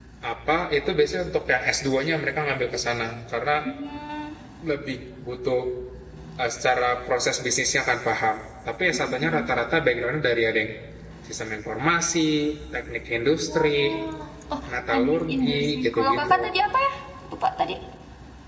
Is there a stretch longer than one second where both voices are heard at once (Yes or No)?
Yes